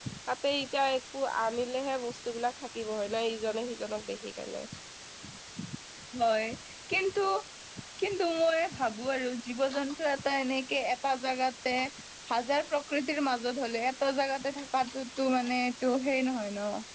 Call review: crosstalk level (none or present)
none